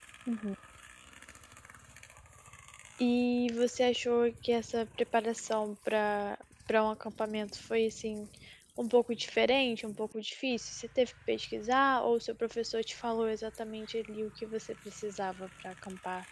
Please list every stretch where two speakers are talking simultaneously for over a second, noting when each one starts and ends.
none

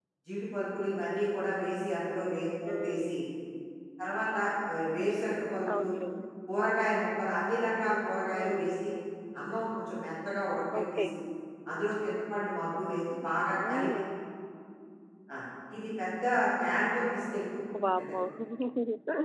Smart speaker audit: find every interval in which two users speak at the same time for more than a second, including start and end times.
none

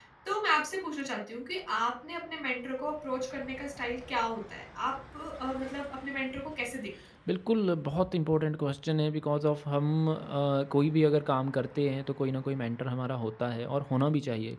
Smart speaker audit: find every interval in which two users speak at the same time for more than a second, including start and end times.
none

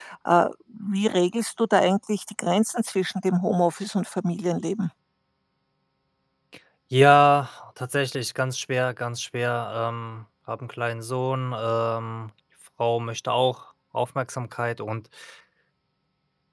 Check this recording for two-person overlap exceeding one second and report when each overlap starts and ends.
none

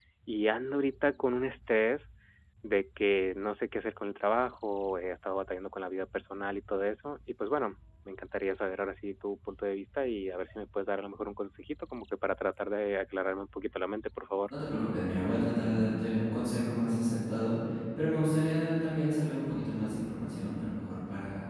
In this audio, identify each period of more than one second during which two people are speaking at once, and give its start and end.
none

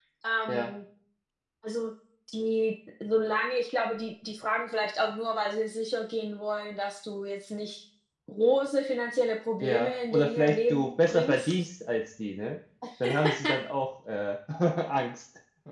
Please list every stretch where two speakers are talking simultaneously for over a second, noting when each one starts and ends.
9.6-11.7

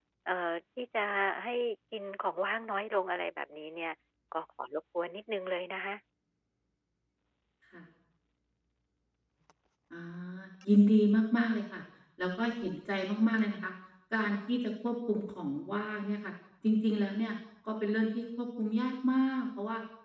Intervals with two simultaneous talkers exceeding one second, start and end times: none

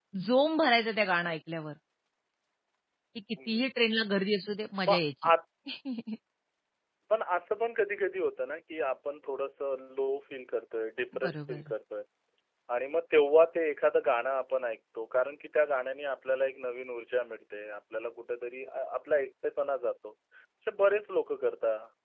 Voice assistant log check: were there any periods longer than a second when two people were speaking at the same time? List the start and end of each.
none

